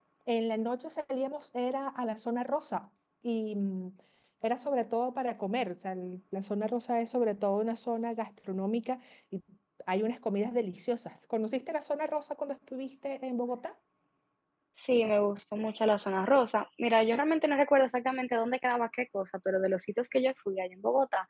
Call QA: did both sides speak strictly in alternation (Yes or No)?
Yes